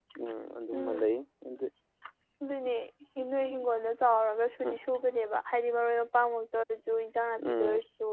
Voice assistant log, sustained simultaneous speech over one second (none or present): none